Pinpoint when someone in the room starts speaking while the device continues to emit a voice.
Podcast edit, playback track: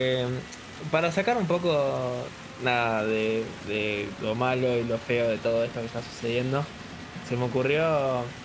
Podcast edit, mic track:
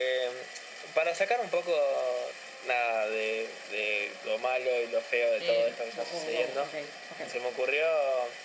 5 s

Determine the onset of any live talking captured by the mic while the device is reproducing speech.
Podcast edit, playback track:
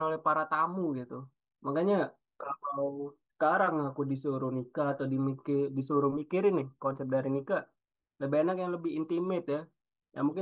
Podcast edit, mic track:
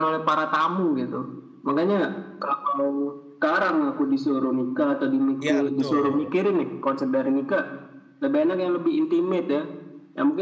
5 s

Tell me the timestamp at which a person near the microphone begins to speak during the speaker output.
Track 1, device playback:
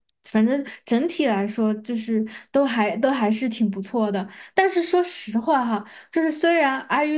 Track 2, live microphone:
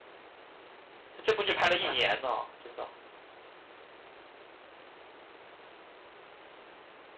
1 s

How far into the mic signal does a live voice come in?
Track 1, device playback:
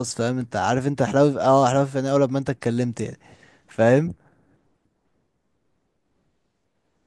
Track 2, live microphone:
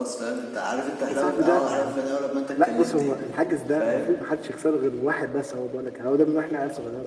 1 s

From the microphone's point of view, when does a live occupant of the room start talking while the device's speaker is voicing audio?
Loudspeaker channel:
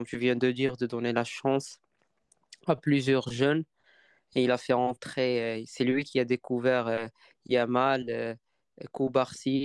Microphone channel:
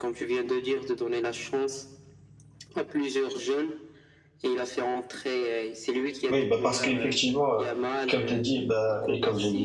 6 s

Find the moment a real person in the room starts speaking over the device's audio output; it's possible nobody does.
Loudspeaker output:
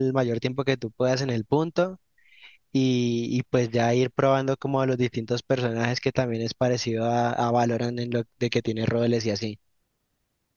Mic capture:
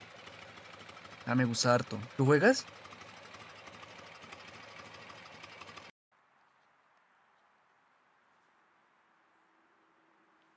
1 s

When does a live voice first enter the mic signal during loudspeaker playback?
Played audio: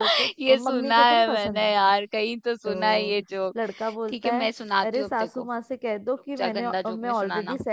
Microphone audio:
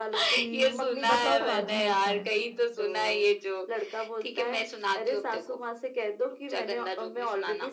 0 s

